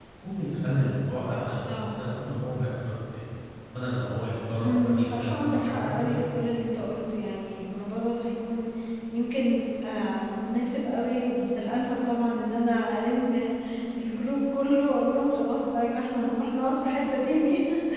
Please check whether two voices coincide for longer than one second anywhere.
Yes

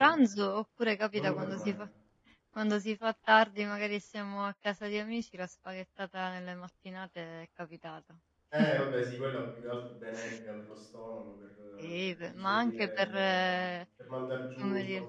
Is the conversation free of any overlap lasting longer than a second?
No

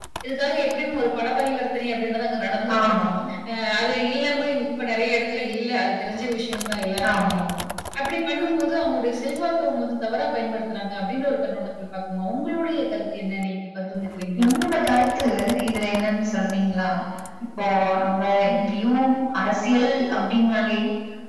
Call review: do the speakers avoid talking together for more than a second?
Yes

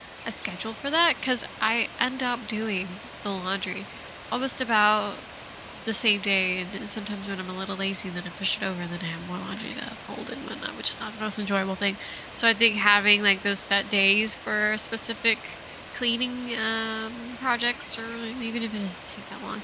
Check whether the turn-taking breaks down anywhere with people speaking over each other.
No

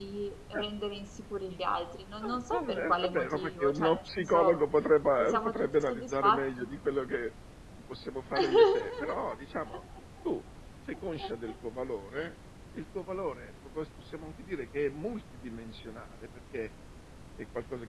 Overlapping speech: Yes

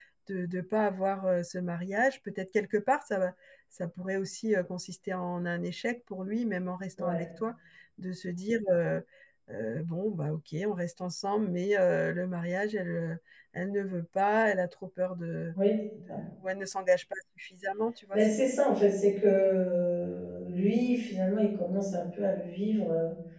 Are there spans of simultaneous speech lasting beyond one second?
No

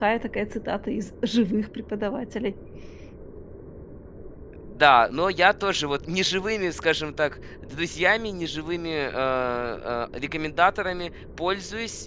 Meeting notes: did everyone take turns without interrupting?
Yes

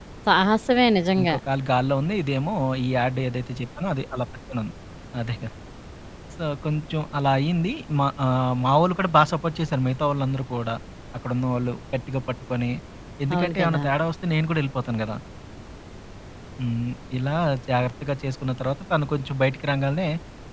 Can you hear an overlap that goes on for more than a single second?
No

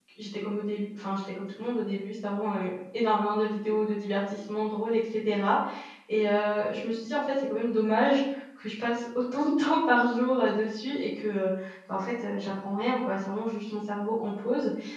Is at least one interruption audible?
No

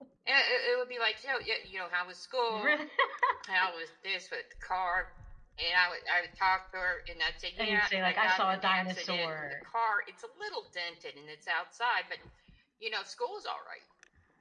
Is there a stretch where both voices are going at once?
Yes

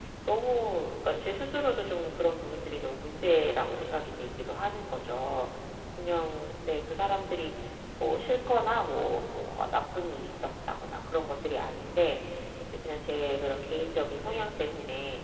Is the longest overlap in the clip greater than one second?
No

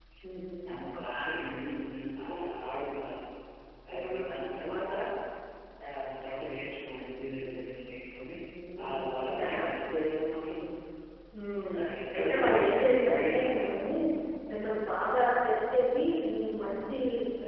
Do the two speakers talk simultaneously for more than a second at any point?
Yes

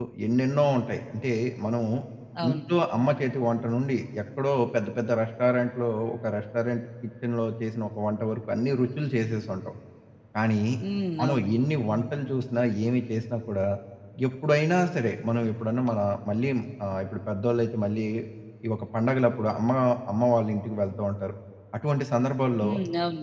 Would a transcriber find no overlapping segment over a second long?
Yes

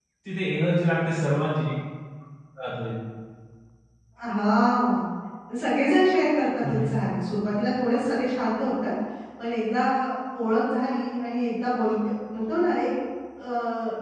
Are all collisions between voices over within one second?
Yes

